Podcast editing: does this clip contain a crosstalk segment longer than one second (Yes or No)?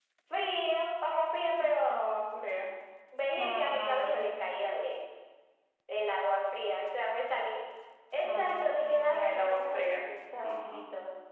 Yes